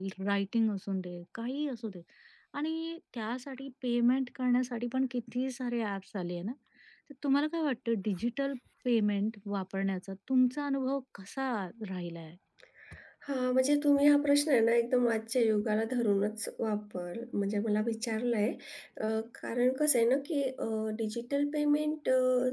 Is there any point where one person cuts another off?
No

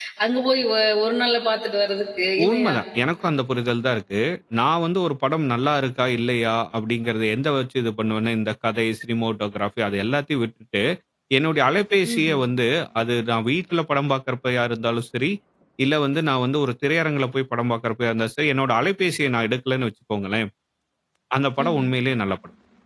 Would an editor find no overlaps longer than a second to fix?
Yes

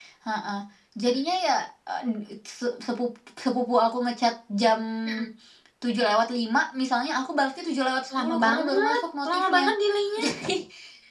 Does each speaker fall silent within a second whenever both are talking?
No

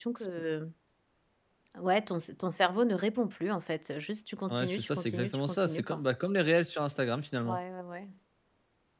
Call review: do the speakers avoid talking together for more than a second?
No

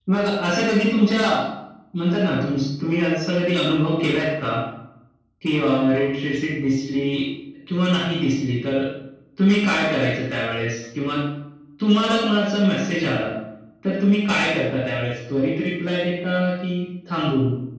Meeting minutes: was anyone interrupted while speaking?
No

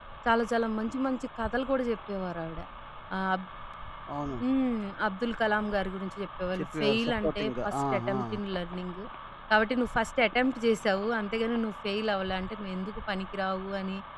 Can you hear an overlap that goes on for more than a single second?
Yes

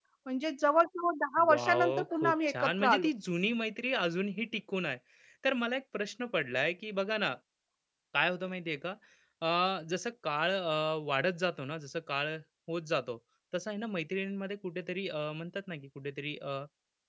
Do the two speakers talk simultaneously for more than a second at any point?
Yes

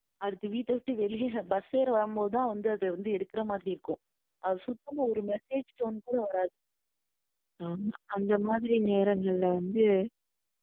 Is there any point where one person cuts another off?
No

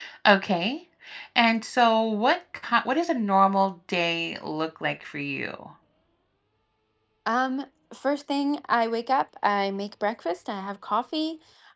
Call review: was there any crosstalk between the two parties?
No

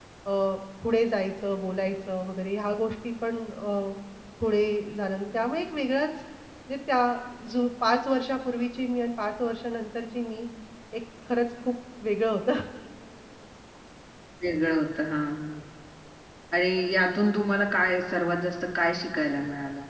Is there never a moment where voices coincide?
Yes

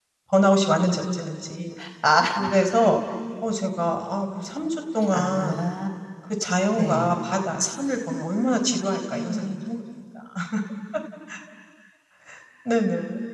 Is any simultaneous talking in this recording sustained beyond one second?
No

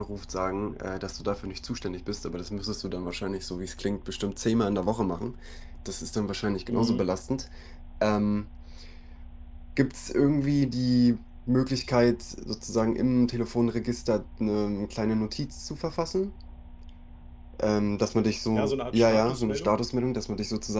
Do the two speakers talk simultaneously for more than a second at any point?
Yes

